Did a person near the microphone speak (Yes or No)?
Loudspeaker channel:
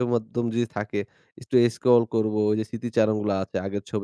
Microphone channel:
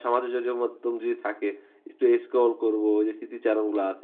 No